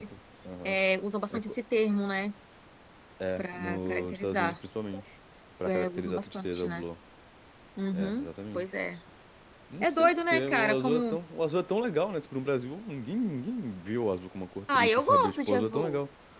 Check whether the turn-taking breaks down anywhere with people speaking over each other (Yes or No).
Yes